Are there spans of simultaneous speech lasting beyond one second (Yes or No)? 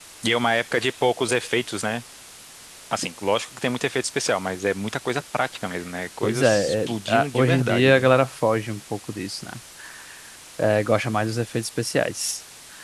Yes